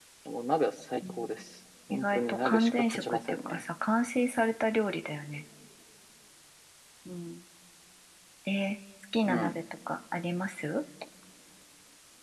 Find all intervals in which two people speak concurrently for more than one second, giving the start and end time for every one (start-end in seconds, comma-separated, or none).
1.9-3.6